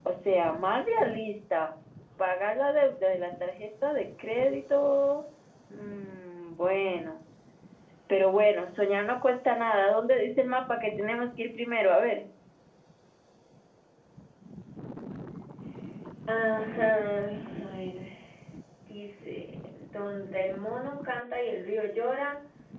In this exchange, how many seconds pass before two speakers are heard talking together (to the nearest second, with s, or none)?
none